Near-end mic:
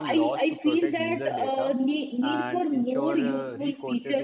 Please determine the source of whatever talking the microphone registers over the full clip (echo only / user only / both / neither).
both